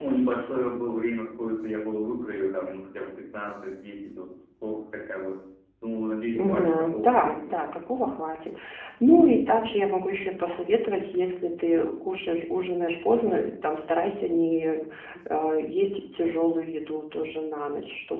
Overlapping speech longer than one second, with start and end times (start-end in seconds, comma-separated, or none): 6.4-7.7